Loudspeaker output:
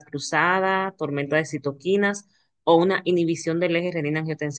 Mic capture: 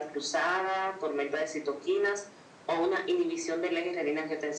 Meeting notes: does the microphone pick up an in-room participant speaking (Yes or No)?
No